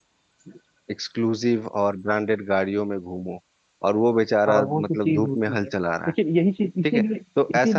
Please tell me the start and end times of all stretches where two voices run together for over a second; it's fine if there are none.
4.5-5.7

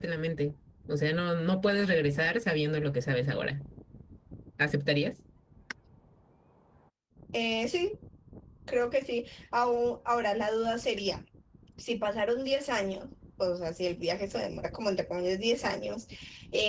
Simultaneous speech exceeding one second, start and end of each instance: none

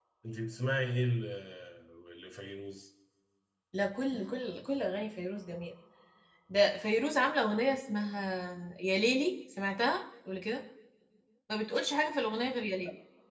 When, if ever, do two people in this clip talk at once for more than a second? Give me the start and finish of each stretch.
none

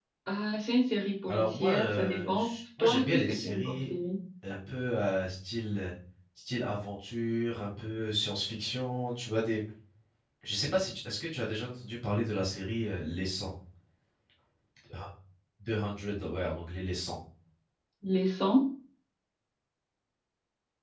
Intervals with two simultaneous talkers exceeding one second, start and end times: 1.3-3.8

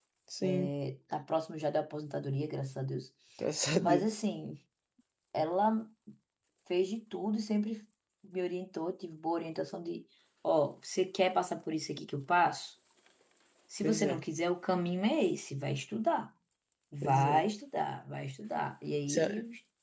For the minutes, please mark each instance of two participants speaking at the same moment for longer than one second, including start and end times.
none

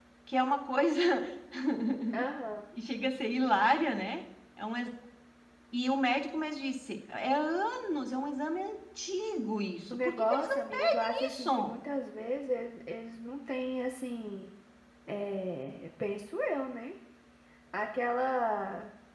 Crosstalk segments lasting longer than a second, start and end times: 9.9-11.8

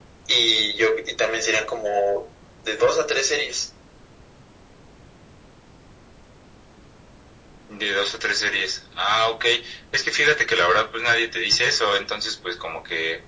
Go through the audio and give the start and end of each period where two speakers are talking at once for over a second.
none

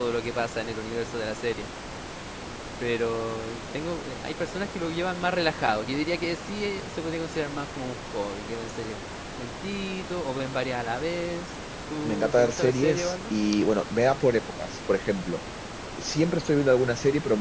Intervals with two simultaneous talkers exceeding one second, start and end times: 12.0-13.3

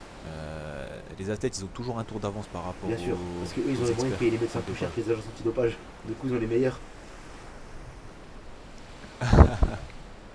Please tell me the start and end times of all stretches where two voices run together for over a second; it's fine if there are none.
2.8-5.0

